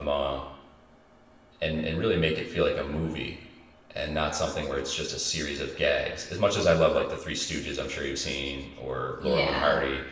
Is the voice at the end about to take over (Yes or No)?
No